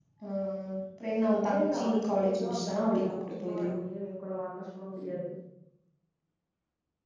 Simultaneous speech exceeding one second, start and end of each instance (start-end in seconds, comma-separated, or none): 1.4-3.7